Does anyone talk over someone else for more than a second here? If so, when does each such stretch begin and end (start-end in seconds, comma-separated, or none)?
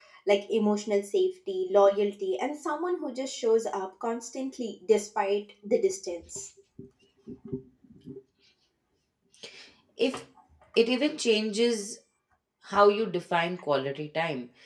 none